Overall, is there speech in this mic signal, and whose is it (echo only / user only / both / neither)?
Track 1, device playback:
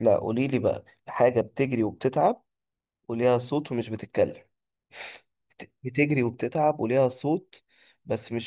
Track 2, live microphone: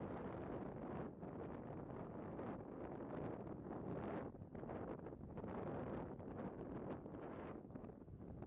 neither